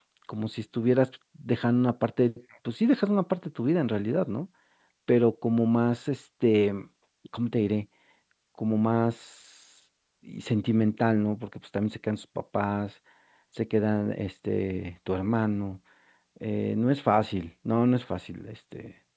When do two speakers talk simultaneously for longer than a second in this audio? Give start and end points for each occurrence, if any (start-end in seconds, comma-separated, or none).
none